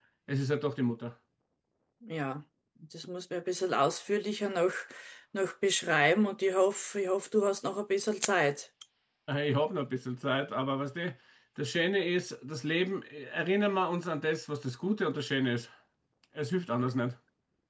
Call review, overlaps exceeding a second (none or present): none